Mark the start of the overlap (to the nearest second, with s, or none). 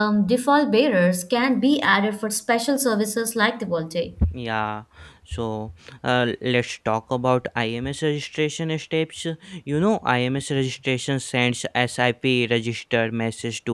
none